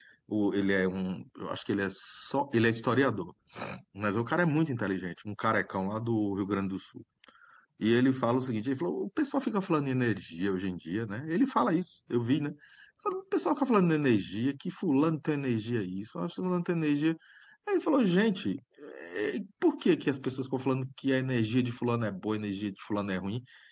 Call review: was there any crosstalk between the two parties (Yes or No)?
No